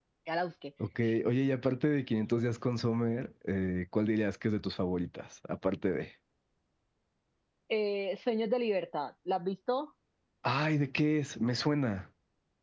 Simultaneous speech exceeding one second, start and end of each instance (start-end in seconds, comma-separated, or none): none